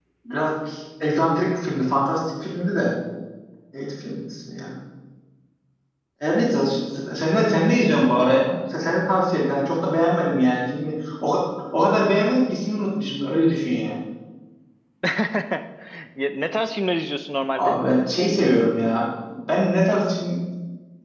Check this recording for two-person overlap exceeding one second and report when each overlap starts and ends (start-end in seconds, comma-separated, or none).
none